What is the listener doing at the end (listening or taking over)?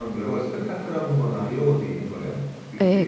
taking over